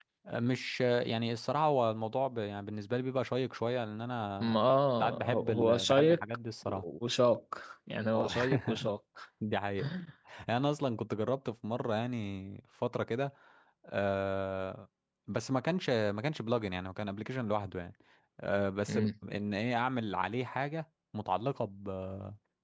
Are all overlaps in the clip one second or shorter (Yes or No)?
No